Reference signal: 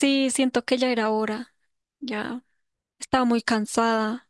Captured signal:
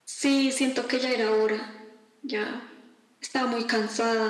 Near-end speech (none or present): none